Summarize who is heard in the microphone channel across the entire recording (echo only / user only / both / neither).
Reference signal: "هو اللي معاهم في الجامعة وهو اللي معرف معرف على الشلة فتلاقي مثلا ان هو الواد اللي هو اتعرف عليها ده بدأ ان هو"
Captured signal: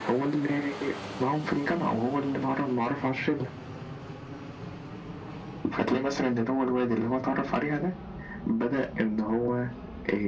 echo only